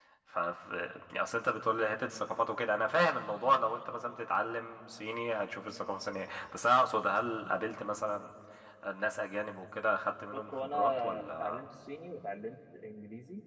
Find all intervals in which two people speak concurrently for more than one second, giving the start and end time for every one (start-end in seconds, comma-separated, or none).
10.3-11.6